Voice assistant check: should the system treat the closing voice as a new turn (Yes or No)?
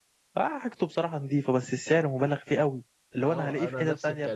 Yes